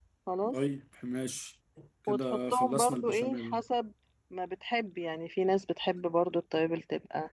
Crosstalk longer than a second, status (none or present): present